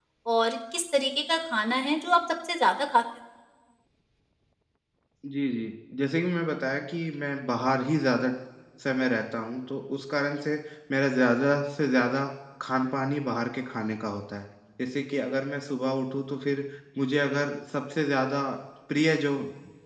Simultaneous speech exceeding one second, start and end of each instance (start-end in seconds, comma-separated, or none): none